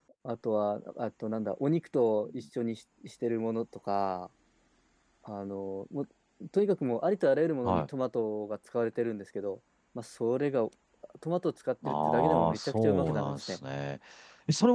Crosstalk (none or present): present